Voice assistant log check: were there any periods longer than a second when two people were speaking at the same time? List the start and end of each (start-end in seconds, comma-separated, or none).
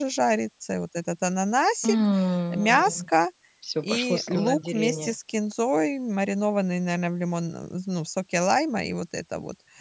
3.8-5.1